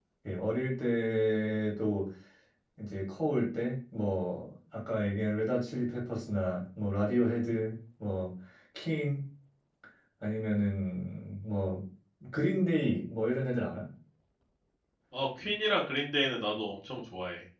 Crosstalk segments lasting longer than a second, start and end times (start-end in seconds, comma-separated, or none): none